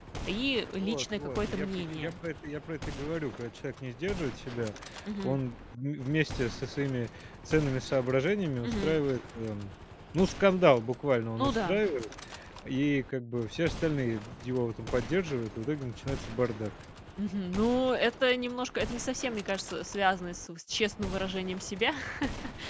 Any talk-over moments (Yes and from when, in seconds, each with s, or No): Yes, from 0.8 s